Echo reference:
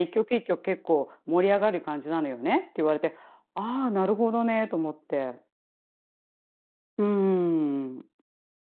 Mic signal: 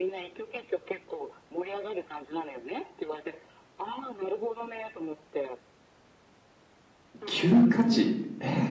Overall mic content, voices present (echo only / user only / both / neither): both